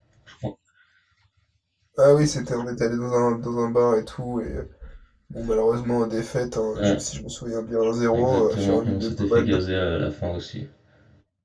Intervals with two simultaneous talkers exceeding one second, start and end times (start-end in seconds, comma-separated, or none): 8.1-9.6